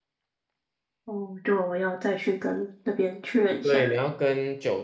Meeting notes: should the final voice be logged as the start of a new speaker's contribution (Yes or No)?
Yes